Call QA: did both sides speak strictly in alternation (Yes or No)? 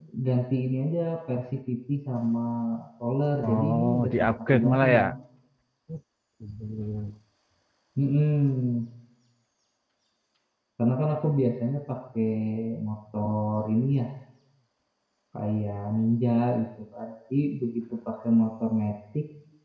No